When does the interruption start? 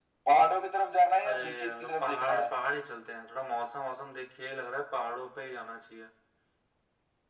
1 s

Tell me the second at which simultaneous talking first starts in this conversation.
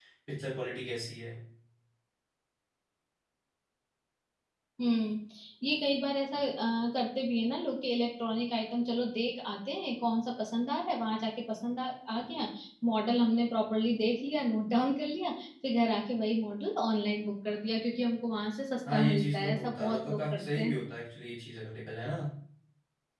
19 s

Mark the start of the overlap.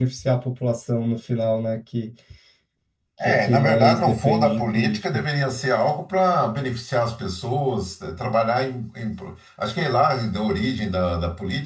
3 s

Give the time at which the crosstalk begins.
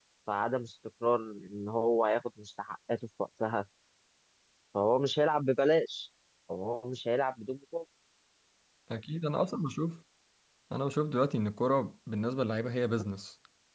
none

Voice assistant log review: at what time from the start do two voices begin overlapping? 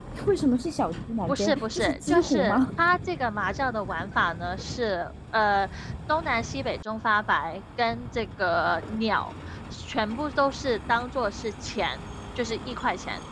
1 s

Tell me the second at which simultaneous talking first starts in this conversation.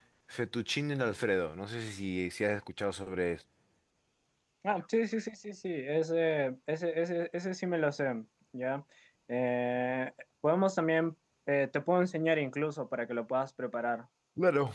none

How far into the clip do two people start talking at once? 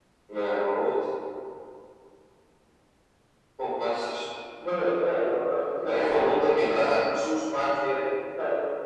6 s

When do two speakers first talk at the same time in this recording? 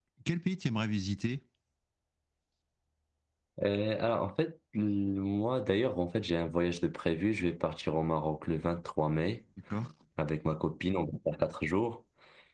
none

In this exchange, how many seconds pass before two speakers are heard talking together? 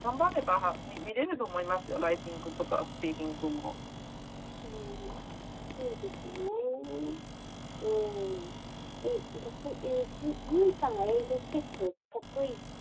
none

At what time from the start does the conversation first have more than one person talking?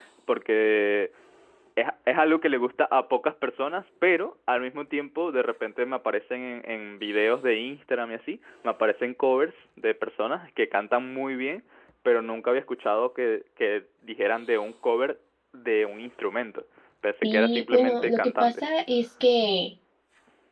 17 s

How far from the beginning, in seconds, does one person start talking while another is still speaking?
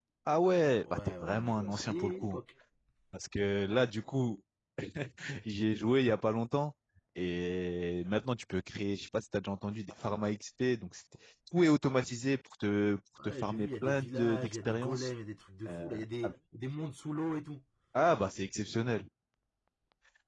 1 s

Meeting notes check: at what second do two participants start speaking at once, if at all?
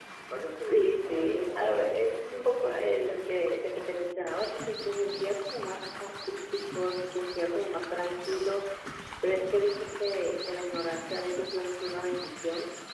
1 s

